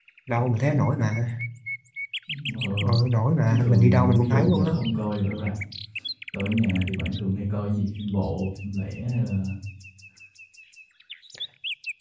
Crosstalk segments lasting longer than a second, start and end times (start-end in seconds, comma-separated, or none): 3.5-4.8